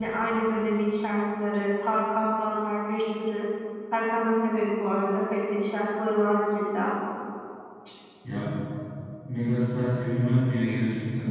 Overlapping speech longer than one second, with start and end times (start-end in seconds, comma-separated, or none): none